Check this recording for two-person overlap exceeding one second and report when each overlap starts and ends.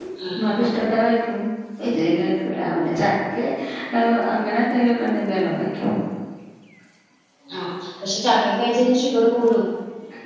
none

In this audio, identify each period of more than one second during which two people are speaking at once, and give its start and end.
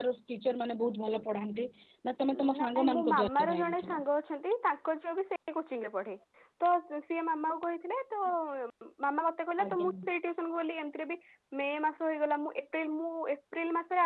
2.6-4.0

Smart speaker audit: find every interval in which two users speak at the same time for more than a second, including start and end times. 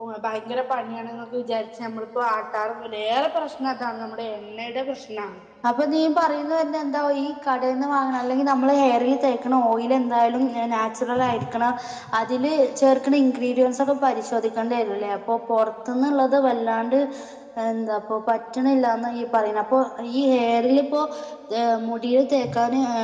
none

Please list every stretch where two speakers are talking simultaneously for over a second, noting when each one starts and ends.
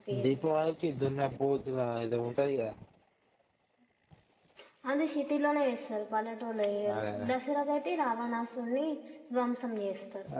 none

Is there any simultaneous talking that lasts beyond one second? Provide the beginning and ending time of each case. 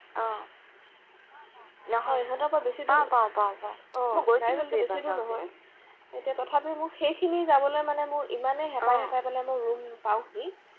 4.1-5.3

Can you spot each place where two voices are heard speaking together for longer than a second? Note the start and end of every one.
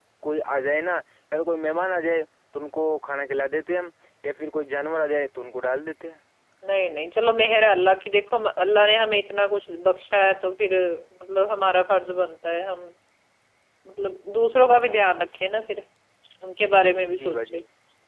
none

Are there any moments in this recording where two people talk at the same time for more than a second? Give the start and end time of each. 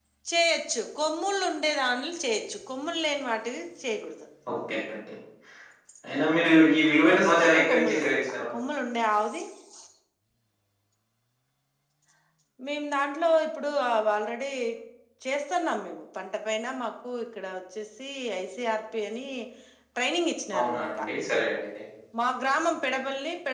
7.1-8.3

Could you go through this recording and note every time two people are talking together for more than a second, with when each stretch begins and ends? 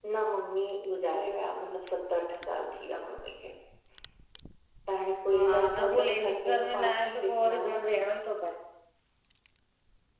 5.3-7.8

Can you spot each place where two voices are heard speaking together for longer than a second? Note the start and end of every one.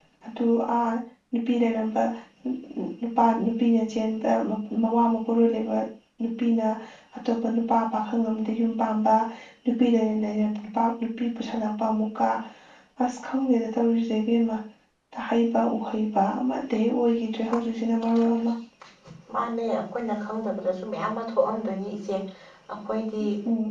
none

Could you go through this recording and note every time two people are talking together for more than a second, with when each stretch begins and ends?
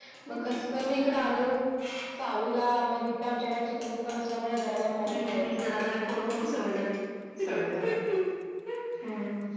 5.1-6.5

